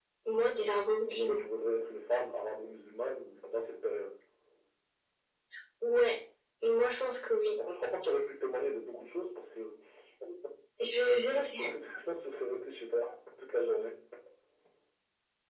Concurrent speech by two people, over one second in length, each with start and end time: none

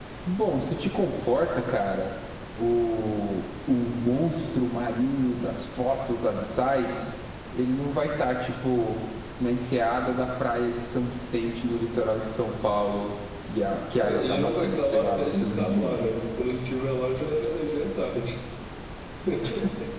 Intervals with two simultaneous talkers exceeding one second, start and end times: 14.0-16.0

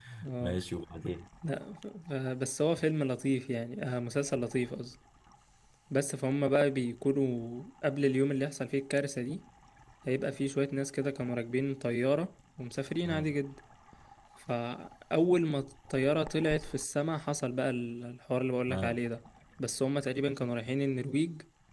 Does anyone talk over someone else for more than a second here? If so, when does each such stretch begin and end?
none

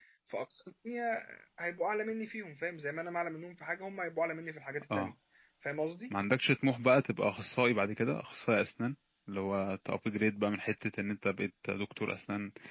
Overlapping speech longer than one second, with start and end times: none

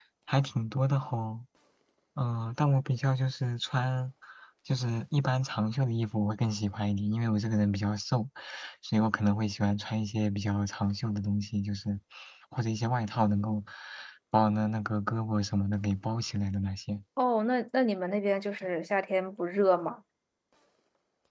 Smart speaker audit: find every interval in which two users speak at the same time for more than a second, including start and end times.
none

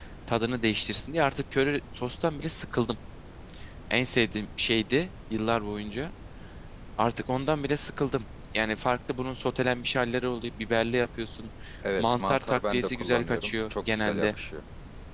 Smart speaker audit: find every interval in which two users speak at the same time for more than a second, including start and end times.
12.0-14.3

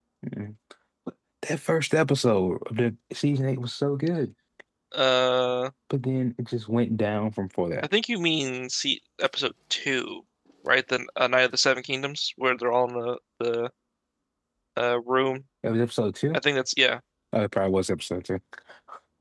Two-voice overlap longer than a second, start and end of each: none

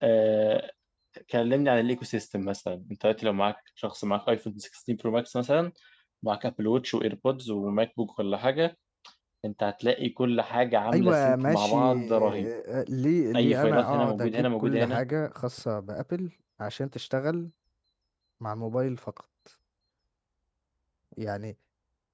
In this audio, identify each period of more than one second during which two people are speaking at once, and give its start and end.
10.9-12.5, 13.3-15.0

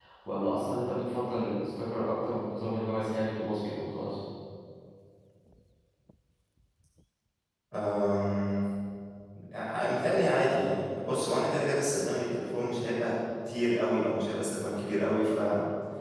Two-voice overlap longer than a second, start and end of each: none

